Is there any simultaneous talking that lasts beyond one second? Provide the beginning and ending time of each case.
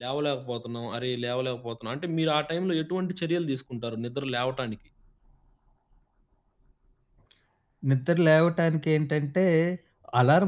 none

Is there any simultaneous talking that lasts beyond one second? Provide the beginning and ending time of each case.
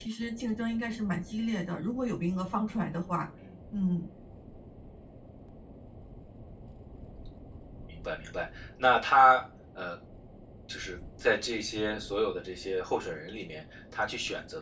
none

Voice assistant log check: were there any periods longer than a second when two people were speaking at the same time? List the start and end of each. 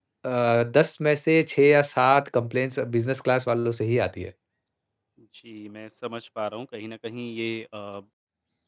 none

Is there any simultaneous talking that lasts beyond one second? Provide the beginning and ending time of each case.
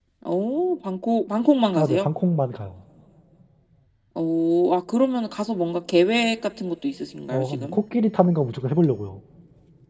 none

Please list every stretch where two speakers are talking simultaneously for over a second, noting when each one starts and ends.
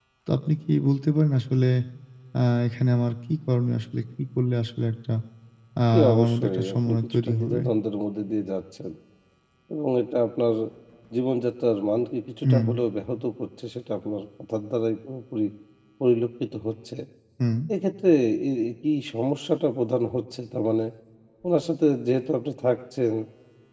5.9-7.6

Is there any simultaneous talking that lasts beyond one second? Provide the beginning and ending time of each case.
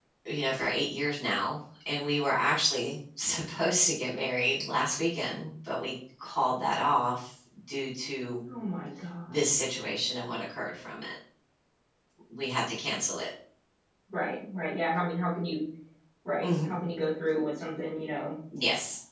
none

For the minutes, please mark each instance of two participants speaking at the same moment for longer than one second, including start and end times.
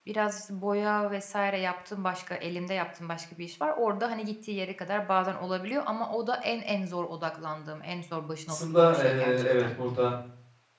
8.5-9.7

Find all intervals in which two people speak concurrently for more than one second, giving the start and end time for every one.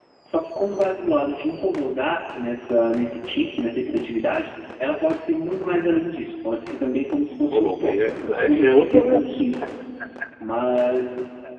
7.5-9.2

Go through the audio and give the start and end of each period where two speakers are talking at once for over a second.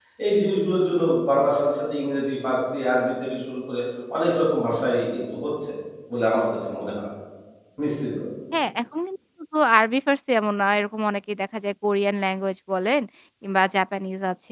none

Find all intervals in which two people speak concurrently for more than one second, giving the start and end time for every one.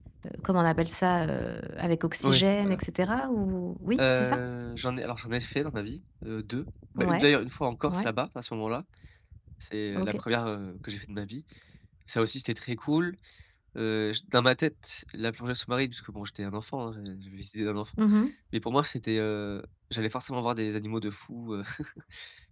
none

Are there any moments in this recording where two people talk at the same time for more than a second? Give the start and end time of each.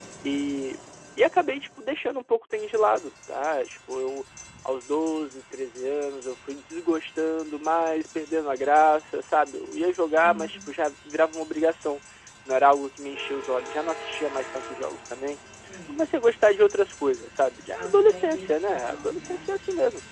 17.7-19.5

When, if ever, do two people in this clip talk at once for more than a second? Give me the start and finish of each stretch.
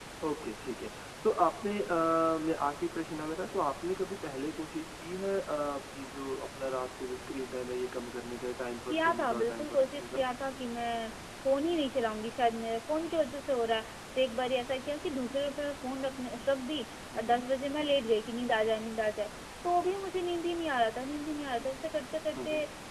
8.9-10.2

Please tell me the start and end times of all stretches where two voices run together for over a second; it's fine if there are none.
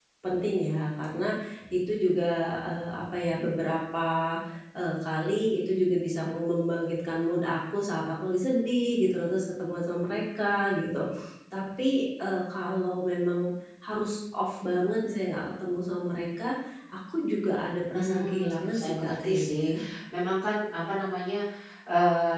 17.9-19.6

